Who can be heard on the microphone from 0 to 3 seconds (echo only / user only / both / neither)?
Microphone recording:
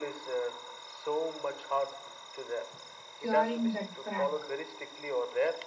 echo only